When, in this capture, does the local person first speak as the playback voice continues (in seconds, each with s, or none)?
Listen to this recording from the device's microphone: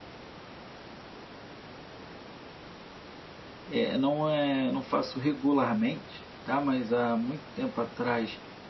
3.7 s